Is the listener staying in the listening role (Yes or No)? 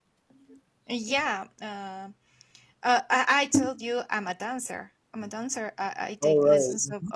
Yes